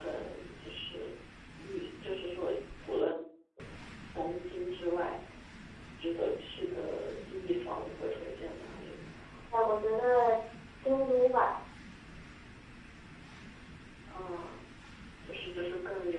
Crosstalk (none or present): none